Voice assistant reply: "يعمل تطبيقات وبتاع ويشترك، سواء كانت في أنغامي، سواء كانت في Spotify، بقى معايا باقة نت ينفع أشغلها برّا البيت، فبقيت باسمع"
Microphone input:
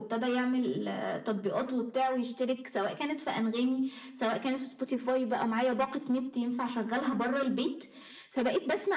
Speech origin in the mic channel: echo only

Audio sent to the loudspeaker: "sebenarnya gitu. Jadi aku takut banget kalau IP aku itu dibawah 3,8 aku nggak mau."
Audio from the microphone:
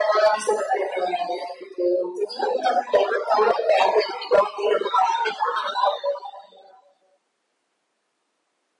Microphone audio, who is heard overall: echo only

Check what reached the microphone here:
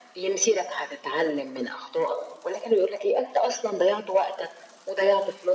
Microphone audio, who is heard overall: echo only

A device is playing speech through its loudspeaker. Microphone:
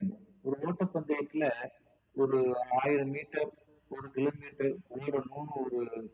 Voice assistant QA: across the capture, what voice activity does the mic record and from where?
echo only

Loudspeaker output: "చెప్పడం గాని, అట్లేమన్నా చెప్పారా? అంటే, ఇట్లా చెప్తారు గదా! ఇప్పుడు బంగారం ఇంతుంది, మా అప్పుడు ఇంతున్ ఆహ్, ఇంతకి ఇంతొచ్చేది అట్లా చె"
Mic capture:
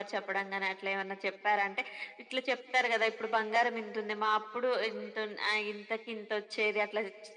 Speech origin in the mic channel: echo only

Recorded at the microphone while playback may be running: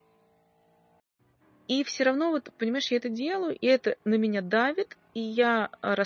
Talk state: user only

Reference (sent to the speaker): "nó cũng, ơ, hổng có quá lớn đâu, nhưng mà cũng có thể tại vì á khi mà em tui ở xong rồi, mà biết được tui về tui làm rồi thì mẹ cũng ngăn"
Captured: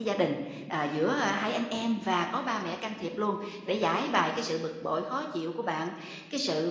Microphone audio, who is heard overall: user only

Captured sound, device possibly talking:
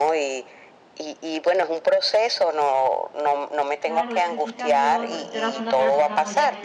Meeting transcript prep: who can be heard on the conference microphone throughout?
both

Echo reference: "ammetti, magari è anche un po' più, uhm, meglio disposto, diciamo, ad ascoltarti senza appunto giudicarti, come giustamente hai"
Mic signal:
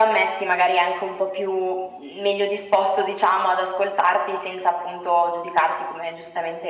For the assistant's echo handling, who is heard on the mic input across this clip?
echo only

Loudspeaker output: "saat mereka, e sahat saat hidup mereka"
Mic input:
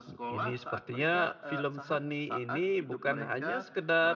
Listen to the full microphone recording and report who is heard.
both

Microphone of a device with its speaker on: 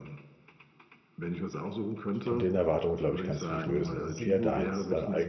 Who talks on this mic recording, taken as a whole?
both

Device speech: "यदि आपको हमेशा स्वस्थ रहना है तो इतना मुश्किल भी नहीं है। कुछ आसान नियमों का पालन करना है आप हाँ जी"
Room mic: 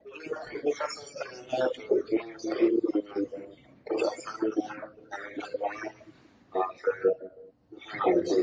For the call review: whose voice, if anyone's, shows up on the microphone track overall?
echo only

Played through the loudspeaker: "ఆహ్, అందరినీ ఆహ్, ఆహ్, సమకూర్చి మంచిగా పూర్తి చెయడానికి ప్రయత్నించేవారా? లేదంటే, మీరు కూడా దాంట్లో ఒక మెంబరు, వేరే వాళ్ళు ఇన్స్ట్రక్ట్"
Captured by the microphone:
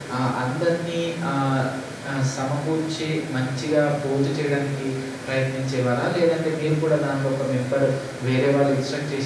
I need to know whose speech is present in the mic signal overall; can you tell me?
echo only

